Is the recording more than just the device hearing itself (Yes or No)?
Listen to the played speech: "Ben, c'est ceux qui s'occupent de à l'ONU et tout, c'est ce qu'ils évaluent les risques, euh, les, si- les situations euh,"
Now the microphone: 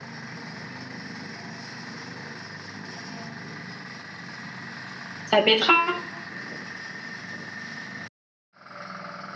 Yes